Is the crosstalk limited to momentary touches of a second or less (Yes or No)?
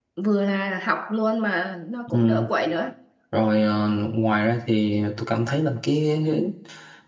Yes